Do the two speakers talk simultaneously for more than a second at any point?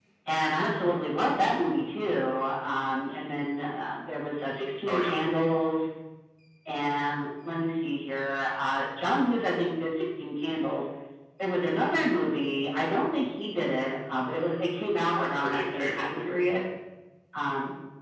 Yes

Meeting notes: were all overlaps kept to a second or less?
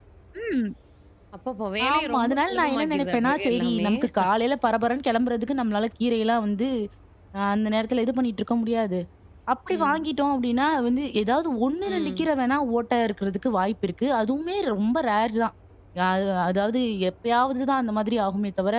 No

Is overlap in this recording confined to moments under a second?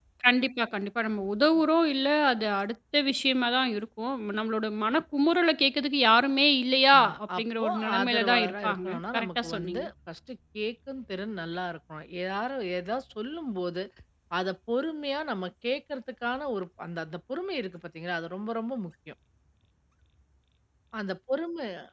No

